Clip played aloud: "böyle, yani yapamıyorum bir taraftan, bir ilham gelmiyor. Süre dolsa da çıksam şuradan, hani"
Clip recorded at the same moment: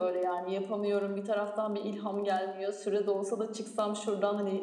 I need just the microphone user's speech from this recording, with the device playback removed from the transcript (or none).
none